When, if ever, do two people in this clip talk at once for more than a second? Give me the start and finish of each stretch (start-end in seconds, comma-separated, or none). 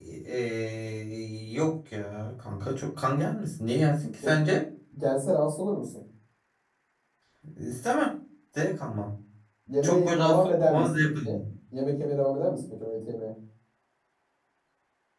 9.8-11.4